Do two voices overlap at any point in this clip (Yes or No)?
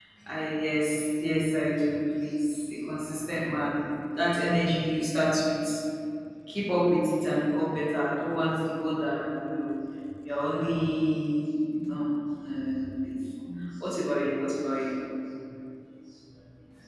No